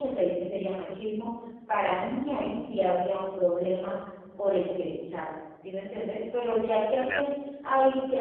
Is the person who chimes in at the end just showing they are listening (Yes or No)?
Yes